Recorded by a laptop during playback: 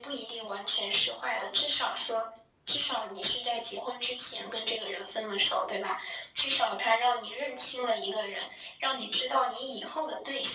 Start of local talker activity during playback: none

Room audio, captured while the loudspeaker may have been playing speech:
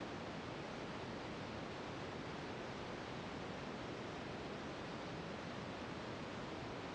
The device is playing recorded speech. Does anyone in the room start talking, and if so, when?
none

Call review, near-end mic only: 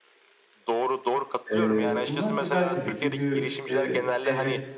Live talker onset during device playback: 1.5 s

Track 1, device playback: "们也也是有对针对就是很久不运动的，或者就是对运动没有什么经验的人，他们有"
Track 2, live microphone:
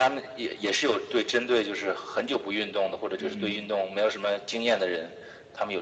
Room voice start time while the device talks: 3.1 s

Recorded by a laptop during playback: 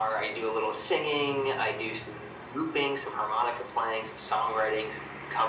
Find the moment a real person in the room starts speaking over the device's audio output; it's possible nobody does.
none

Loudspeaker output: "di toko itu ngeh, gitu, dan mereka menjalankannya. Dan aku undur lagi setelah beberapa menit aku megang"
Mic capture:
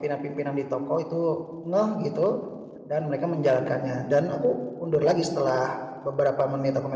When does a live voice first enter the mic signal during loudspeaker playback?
none

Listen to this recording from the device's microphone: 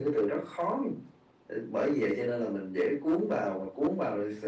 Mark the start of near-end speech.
none

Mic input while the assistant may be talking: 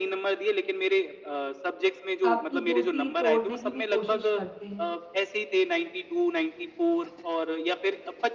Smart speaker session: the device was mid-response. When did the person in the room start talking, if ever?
2.2 s

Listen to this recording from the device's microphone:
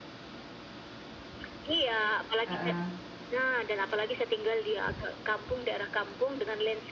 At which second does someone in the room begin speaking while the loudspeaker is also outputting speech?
2.5 s

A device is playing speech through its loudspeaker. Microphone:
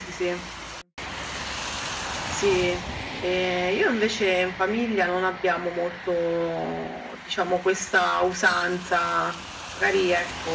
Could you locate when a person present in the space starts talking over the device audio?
none

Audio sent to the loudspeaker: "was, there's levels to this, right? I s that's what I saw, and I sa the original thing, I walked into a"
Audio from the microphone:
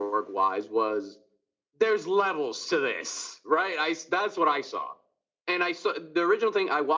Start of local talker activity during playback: none

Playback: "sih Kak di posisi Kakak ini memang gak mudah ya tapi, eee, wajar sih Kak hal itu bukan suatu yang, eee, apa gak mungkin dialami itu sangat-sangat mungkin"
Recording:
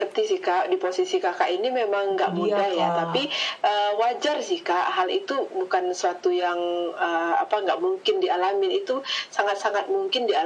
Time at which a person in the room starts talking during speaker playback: 2.1 s

